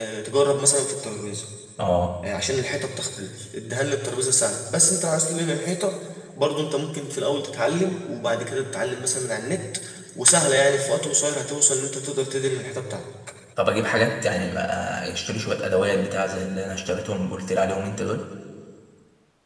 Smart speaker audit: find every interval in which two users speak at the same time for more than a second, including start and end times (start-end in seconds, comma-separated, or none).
none